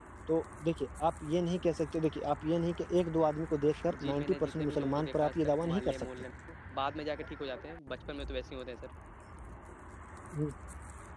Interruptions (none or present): present